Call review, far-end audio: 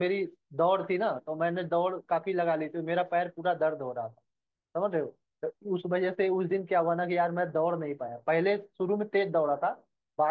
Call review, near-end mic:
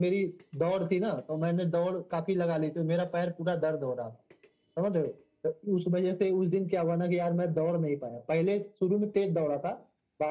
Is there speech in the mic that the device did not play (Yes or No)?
No